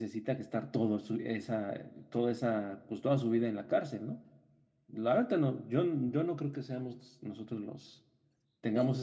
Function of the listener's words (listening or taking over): listening